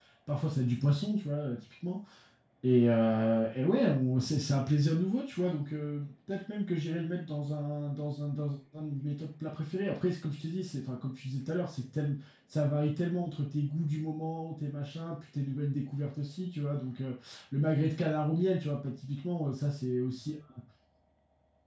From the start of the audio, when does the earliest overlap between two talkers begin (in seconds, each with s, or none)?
none